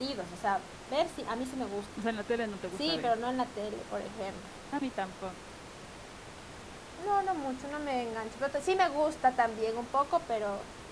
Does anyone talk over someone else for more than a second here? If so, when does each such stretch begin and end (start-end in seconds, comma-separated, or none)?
none